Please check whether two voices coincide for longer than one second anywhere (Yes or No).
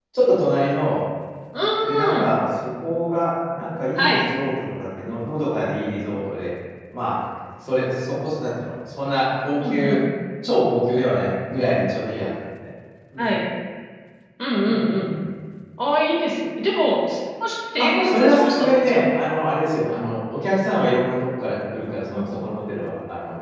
Yes